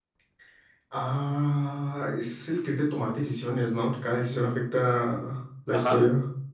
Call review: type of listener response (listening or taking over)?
taking over